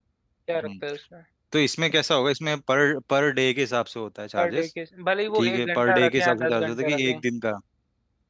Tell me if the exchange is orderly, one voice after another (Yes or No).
No